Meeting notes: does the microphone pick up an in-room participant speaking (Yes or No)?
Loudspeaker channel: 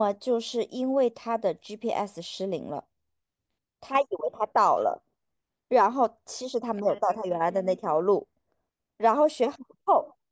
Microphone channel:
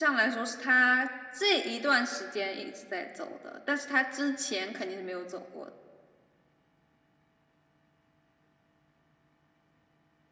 Yes